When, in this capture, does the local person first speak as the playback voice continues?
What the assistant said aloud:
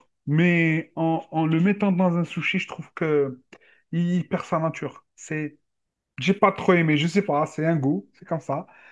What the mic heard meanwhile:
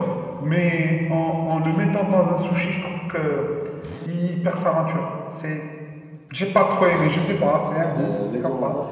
8.0 s

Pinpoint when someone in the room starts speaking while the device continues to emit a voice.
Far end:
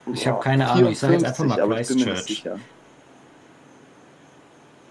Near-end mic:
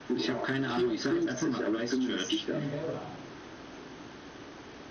2.4 s

